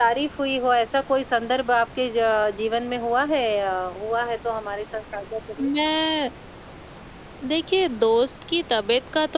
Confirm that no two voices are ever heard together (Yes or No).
Yes